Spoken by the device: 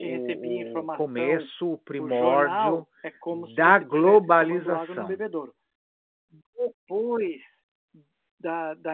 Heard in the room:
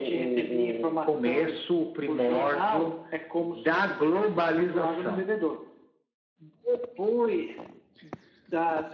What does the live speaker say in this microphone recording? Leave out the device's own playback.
none

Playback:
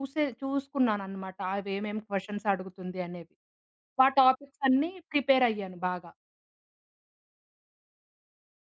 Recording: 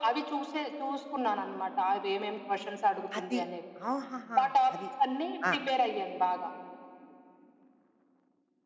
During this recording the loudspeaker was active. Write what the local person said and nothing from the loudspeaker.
అది. ఆహాహా! అది. ఆ!

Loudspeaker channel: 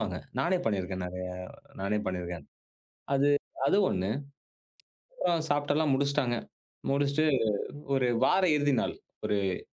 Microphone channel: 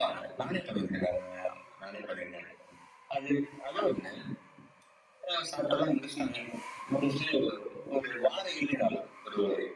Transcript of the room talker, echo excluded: none

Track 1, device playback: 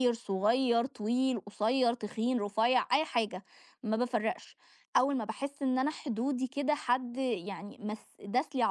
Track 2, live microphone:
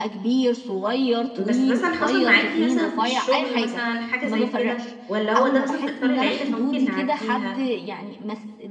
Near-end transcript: بس مثلًا حصل معاكِ مثلًا في الشغل مثلًا حاجة زي كده، والّا هو ده مثلًا في إطار العيلة فممكن نعدّيها؟

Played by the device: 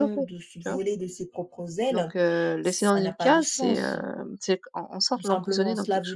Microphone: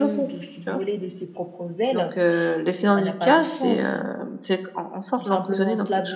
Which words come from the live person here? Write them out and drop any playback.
none

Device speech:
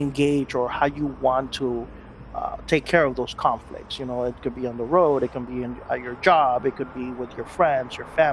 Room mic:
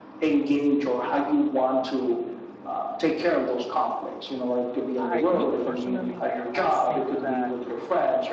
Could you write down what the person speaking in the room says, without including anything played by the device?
I, me personally, I think that

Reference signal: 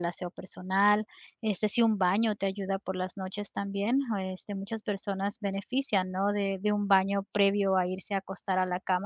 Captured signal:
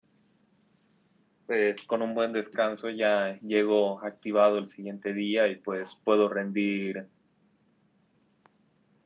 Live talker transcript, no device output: pues, con un buen descanso ya llego activado el siguiente día y, pues, puedo rendir

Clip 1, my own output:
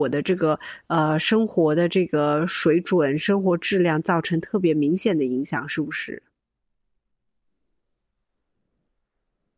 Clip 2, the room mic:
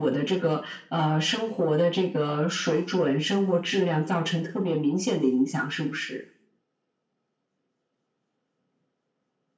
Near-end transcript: none

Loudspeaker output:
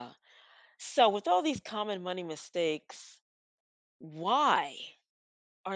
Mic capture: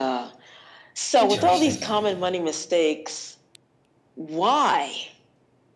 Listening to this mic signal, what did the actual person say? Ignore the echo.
Interesting.

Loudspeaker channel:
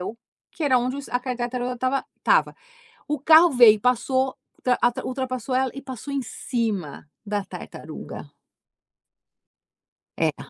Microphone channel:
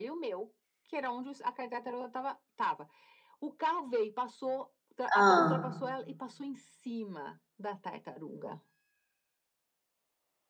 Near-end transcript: Hã.

